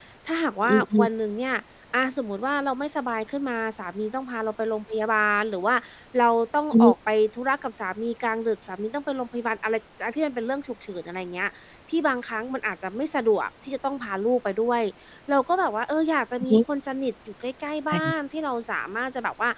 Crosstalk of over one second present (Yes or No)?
No